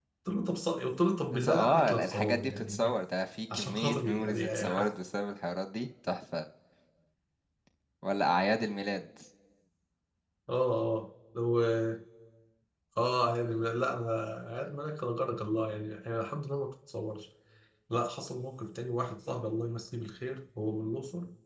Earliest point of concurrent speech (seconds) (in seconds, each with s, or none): 1.3 s